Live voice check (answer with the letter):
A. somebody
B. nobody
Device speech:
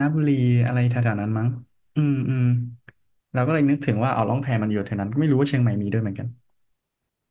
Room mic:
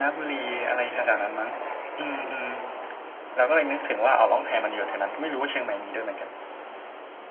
B